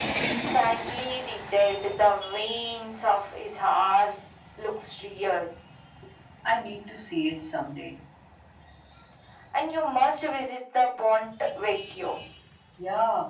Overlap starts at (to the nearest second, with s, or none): none